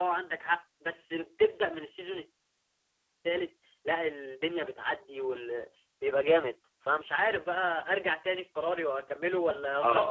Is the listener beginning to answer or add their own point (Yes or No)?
Yes